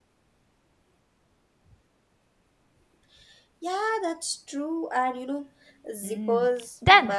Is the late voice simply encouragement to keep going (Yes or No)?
No